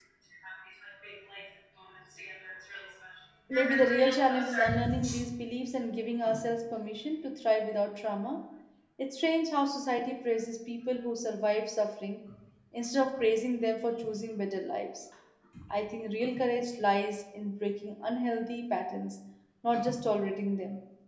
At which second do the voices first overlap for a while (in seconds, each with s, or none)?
3.5 s